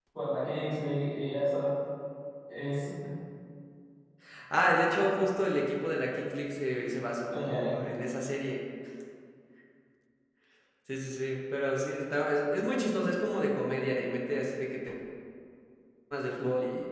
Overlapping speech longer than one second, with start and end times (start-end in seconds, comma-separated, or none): none